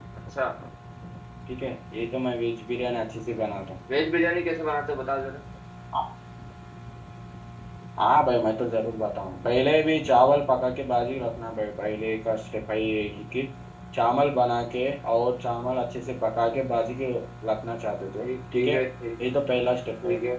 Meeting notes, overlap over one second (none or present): none